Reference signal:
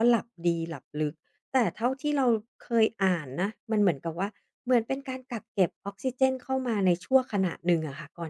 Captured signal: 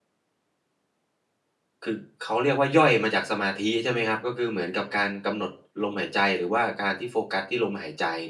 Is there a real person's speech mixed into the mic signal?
Yes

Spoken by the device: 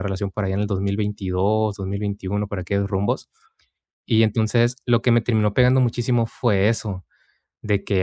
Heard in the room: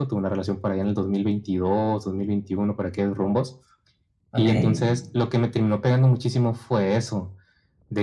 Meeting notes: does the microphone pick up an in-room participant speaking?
Yes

